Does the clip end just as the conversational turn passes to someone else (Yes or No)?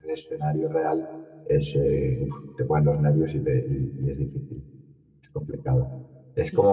No